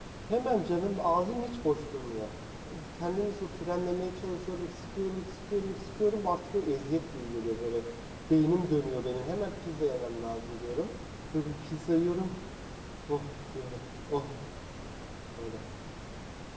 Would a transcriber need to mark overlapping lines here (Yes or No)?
No